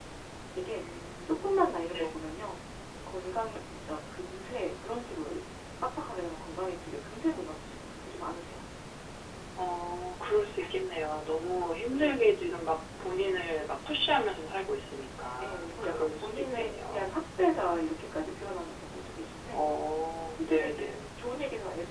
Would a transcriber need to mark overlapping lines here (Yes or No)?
Yes